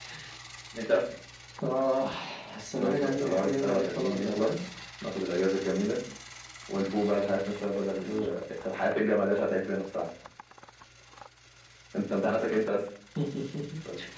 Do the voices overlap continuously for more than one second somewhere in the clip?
Yes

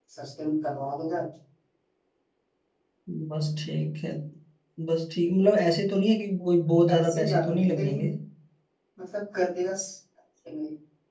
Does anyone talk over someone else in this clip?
Yes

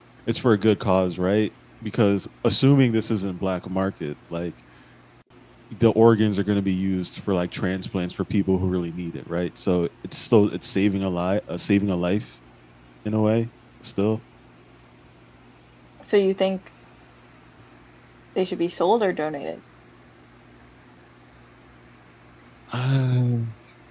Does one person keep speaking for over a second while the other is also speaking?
No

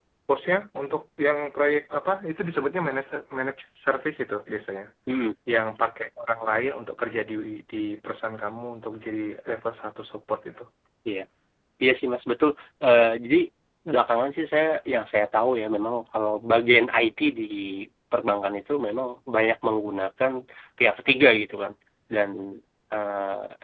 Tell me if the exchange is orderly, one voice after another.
Yes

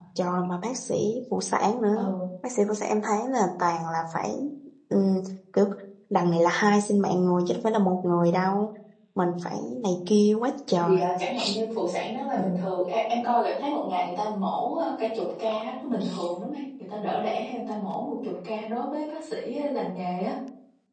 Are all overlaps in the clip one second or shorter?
Yes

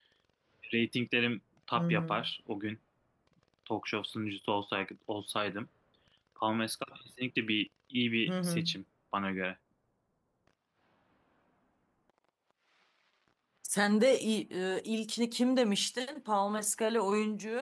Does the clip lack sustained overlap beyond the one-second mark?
Yes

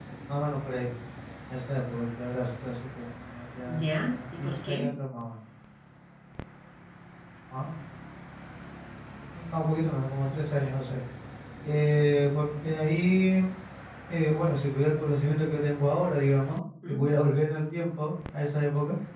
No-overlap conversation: No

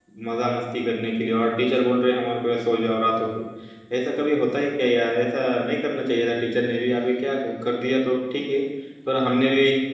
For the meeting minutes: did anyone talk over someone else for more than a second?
No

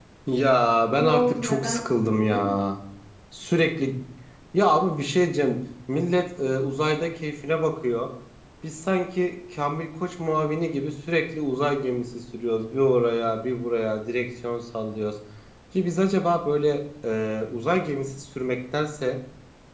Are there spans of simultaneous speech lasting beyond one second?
Yes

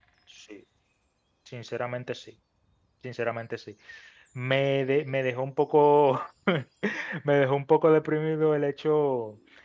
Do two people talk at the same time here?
No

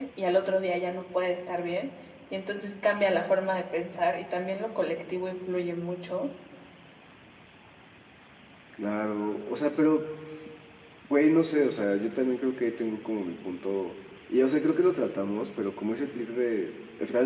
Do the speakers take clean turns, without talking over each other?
Yes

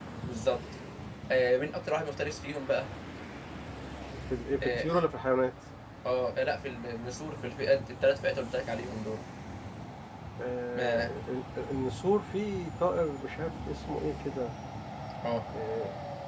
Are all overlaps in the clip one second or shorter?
Yes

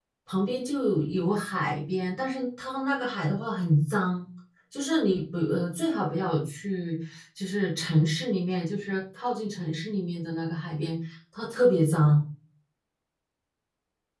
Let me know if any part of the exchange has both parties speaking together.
No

